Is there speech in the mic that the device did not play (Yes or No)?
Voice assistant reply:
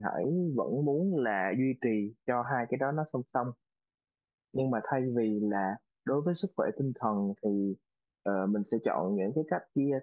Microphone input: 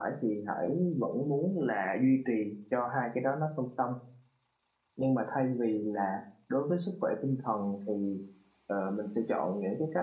No